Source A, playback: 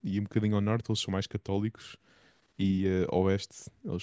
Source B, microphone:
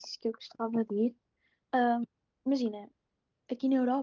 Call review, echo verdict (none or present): none